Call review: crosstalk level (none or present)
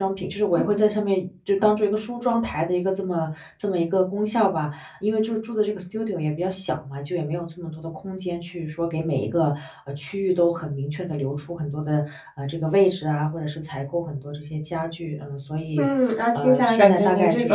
present